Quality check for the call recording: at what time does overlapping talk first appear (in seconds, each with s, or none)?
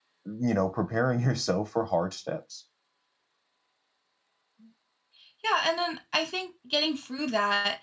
none